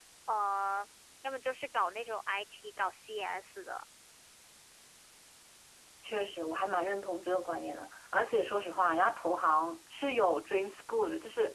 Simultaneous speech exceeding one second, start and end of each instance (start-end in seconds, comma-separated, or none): none